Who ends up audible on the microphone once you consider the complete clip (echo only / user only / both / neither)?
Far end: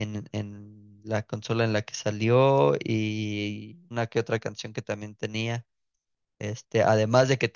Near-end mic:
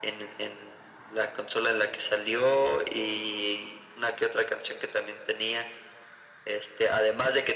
echo only